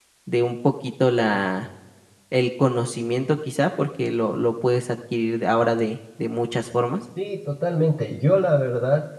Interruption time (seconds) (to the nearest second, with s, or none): none